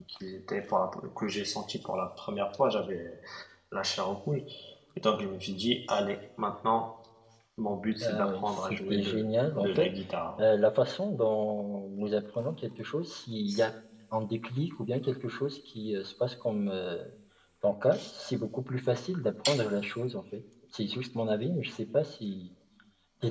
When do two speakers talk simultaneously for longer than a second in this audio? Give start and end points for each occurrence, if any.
8.0-9.2

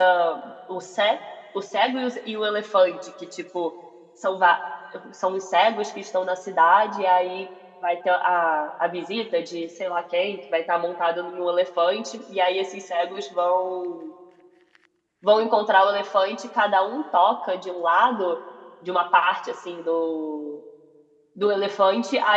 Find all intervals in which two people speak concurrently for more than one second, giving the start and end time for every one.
none

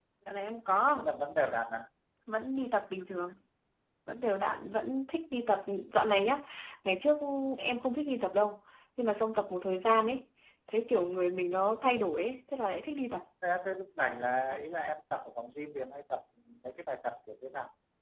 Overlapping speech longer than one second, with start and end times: none

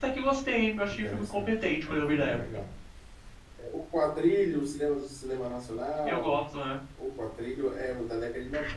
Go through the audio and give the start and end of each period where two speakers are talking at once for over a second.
0.9-2.4

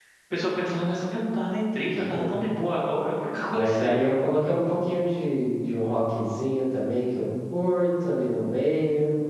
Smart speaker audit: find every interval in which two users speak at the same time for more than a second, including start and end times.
none

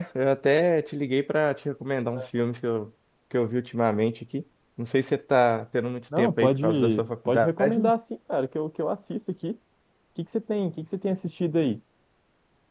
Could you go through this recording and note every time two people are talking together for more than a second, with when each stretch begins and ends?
6.2-7.9

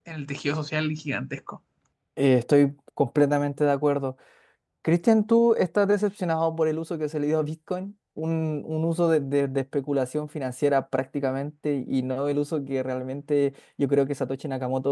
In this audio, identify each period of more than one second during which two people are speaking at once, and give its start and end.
none

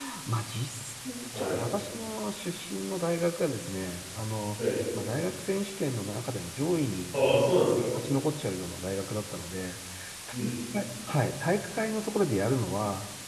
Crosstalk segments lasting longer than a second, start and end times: none

